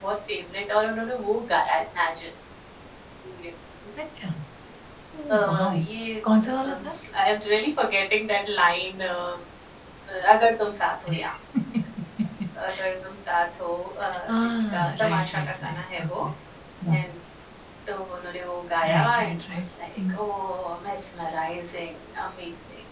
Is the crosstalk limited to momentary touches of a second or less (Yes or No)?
No